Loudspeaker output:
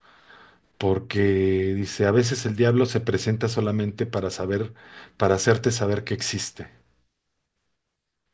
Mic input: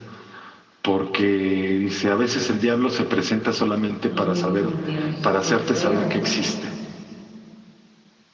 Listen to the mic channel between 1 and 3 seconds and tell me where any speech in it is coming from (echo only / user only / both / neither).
echo only